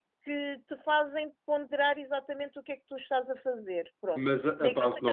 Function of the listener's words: taking over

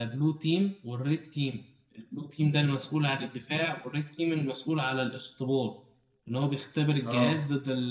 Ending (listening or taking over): listening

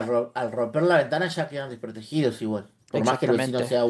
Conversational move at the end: taking over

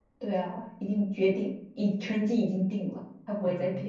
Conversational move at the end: taking over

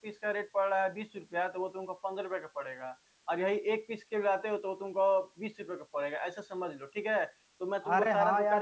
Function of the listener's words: taking over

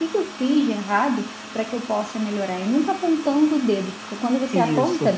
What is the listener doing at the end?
listening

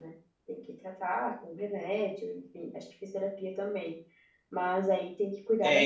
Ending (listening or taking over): taking over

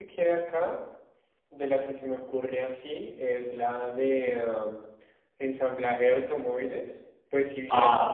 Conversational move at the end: listening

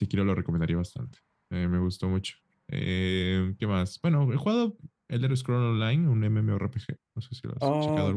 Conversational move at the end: taking over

